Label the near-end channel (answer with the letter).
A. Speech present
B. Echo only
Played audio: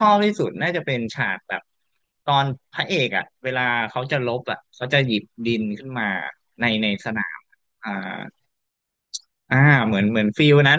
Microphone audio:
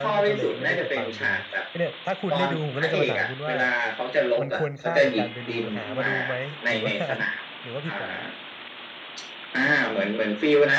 A